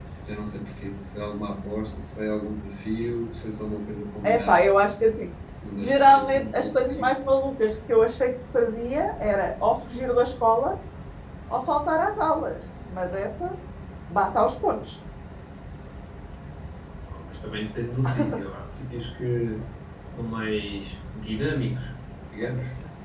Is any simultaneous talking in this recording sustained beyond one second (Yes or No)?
Yes